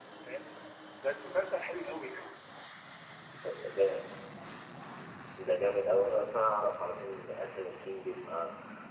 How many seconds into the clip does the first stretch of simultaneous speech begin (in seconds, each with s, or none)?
none